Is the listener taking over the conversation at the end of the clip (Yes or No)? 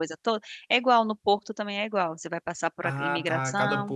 Yes